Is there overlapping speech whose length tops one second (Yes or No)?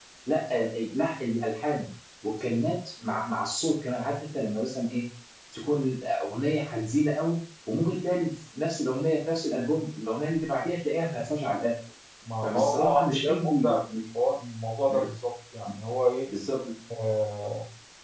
Yes